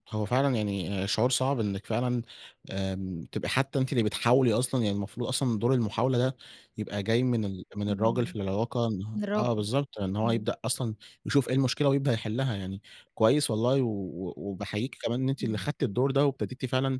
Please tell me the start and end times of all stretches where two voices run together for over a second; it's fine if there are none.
none

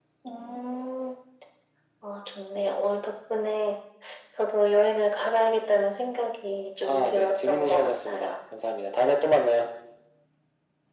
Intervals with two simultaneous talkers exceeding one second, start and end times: 6.8-8.4

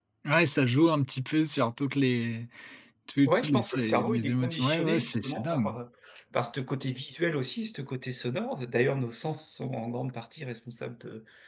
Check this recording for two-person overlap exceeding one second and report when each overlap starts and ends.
3.3-5.8

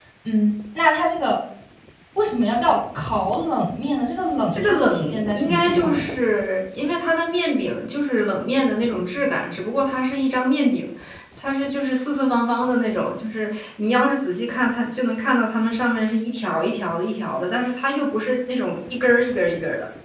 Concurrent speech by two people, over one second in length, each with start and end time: 4.5-6.0

